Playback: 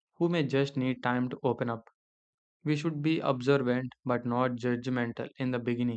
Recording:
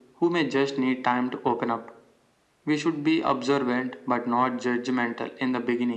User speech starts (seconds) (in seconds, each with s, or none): none